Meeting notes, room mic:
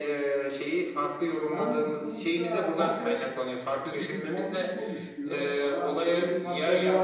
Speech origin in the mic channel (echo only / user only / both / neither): both